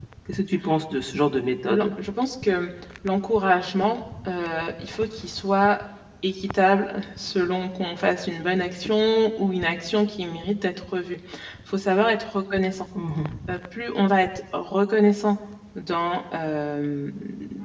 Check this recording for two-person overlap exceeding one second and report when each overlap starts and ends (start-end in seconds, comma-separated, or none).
none